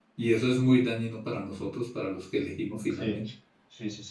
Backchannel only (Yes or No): No